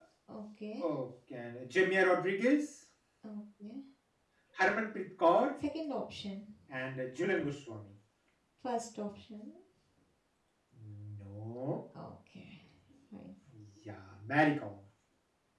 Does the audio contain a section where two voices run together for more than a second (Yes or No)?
No